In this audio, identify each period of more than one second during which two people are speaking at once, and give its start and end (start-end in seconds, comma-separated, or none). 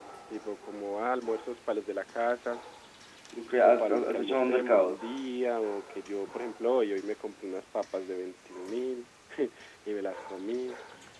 3.6-5.2